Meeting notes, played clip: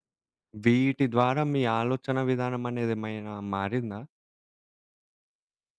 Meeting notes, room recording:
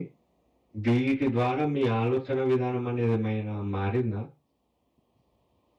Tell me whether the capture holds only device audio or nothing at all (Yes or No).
Yes